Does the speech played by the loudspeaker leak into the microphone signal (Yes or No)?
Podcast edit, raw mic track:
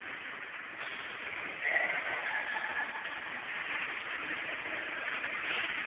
No